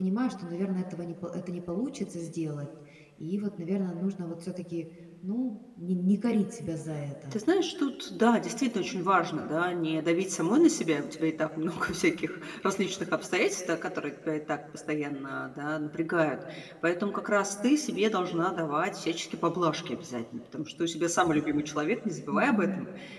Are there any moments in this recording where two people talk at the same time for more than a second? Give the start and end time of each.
none

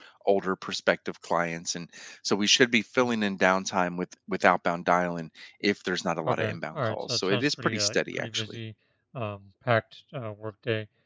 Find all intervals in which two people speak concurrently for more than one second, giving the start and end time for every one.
6.2-8.4

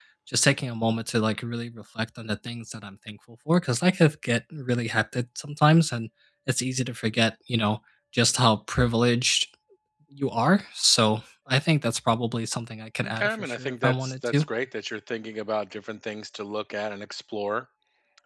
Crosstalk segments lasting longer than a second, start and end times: 13.0-14.4

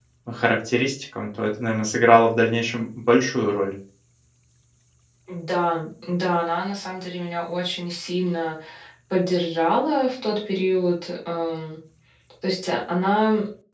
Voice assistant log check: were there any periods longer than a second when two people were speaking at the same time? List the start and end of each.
none

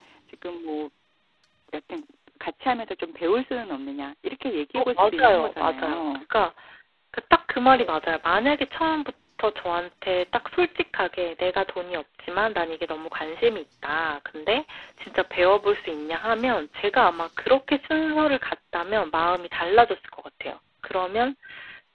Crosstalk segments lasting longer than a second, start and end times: 4.8-6.2

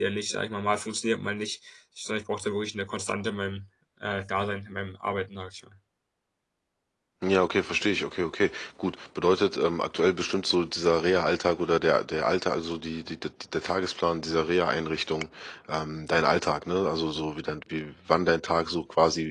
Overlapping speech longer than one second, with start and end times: none

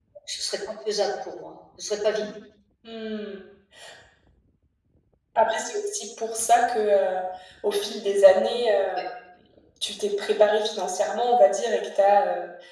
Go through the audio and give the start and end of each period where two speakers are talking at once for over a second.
none

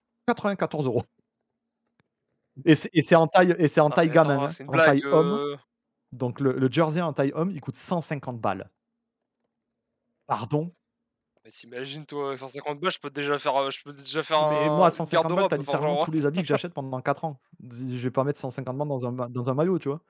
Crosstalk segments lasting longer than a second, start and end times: 3.9-5.4, 14.4-16.1

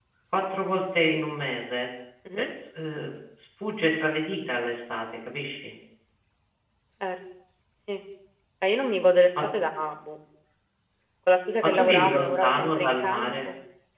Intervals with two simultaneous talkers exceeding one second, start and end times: 11.6-13.3

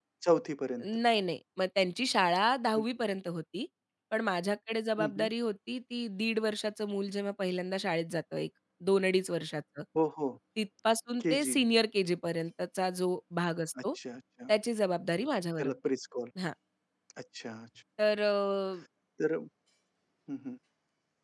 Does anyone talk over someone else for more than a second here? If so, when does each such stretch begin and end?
none

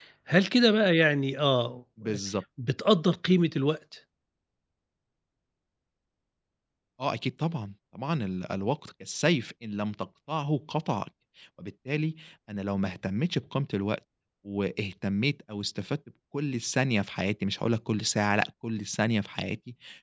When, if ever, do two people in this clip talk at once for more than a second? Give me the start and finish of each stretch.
none

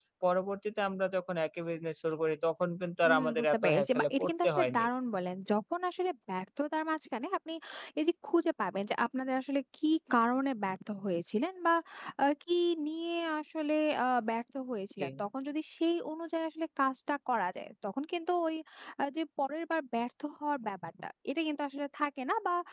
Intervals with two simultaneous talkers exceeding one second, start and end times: 3.1-4.9

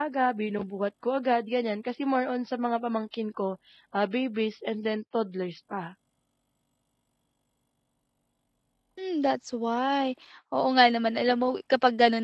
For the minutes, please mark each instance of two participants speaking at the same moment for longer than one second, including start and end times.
none

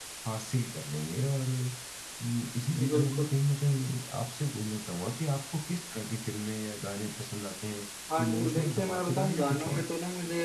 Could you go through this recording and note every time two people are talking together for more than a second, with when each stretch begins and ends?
8.2-9.8

